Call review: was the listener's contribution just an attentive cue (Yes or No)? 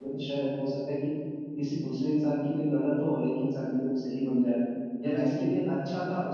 Yes